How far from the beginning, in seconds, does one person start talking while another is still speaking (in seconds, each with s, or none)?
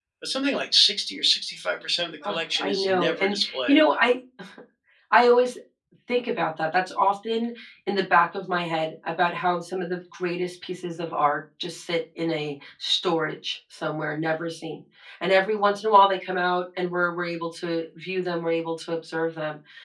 2.2 s